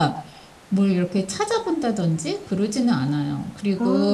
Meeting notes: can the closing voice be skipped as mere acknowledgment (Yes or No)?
Yes